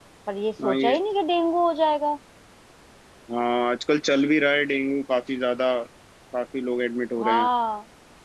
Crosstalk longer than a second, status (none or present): none